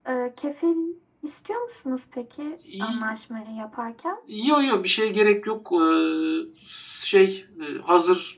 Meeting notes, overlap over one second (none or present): none